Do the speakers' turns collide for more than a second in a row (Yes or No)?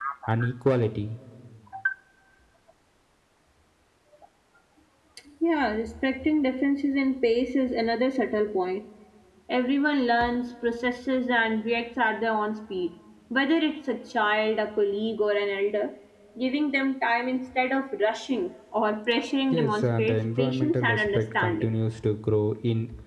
Yes